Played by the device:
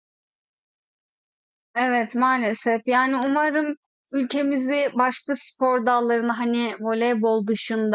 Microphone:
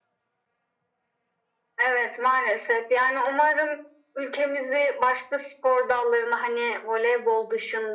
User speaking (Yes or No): No